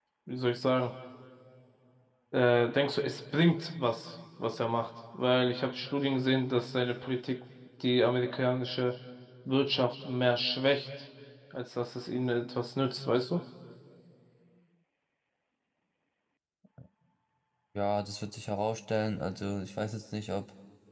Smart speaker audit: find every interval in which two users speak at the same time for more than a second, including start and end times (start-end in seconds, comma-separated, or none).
none